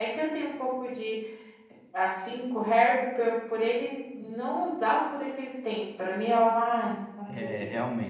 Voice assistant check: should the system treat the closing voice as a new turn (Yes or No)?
Yes